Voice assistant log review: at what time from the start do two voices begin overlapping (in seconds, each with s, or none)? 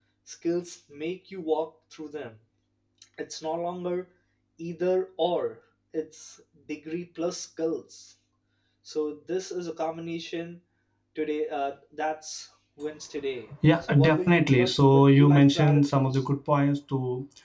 13.6 s